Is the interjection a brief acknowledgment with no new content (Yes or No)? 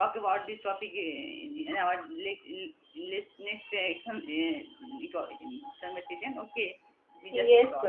No